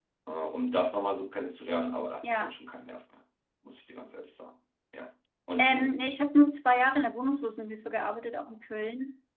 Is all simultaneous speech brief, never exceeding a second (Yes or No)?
Yes